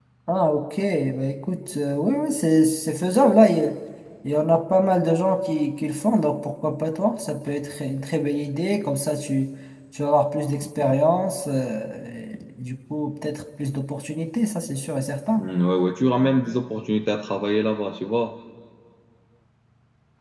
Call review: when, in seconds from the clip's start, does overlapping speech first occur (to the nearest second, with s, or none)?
none